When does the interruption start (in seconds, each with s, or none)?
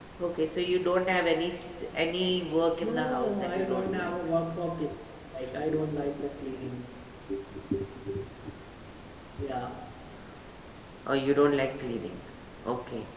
2.8 s